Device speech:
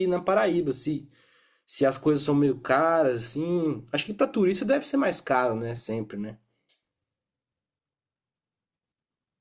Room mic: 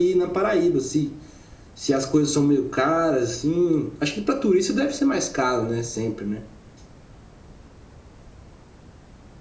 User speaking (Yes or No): No